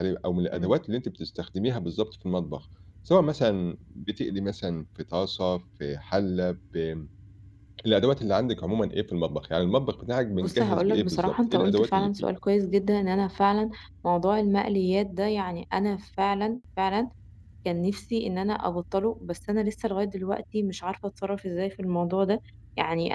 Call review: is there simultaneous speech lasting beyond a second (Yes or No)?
Yes